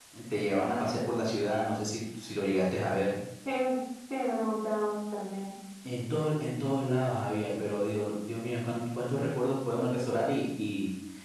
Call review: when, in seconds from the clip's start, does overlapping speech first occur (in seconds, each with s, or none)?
none